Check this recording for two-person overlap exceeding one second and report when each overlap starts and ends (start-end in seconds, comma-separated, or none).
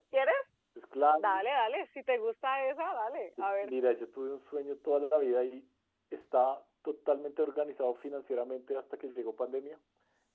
none